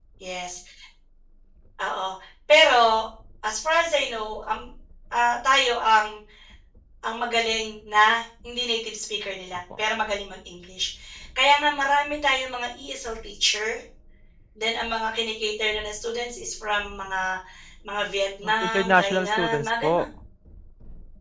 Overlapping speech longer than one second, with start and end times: 18.4-20.1

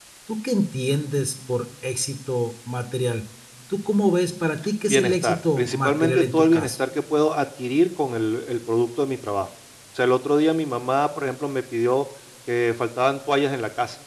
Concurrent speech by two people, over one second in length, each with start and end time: 4.9-6.7

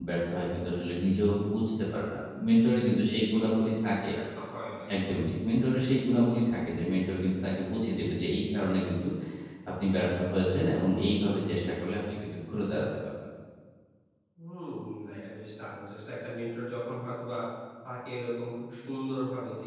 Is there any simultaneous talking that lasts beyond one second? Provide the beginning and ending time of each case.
none

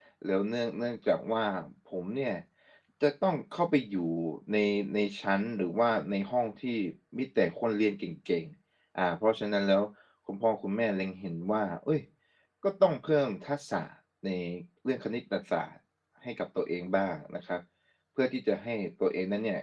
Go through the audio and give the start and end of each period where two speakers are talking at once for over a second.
none

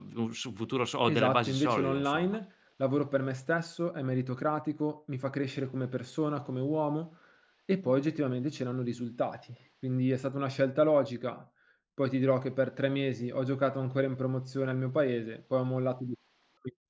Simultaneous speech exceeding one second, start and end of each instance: 1.1-2.4

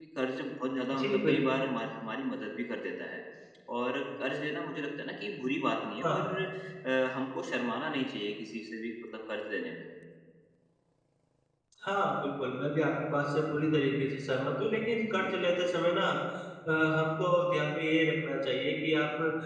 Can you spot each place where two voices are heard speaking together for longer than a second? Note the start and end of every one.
none

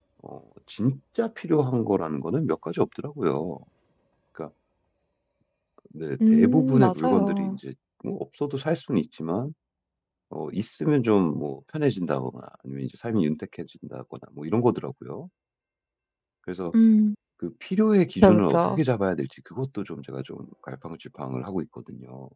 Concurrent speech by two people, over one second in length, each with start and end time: 6.3-7.6

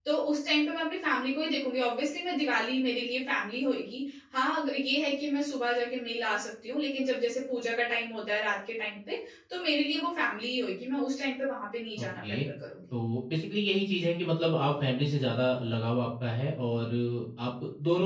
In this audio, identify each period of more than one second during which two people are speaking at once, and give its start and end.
none

